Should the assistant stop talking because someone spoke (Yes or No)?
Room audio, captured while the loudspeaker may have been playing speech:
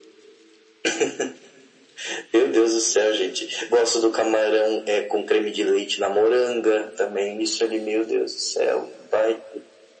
No